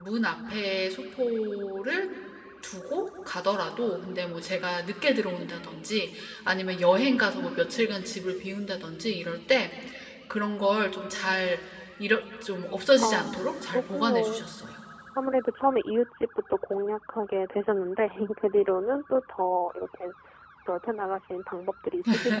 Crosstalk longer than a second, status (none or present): present